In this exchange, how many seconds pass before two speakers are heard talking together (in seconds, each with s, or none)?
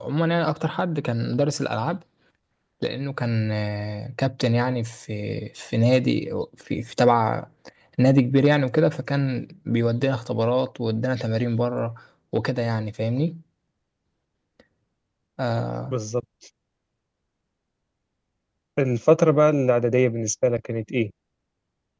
none